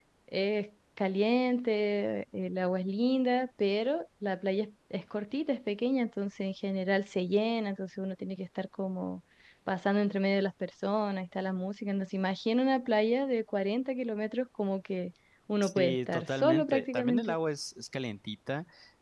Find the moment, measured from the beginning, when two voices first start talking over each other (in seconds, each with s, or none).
15.6 s